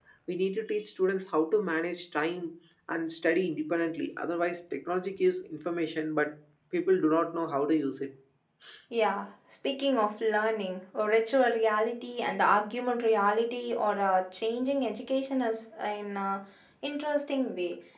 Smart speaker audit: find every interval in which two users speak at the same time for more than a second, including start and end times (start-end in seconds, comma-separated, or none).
none